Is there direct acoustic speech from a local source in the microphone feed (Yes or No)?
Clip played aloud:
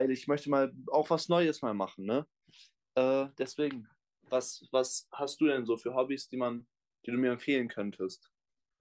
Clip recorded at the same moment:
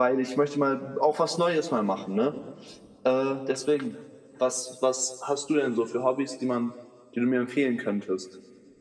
No